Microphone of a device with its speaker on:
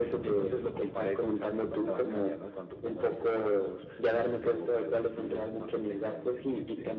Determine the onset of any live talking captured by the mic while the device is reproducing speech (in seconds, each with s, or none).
none